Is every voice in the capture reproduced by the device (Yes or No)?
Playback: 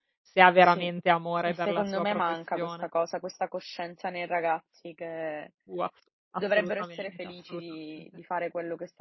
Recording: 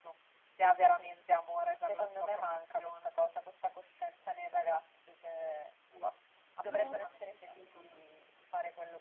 No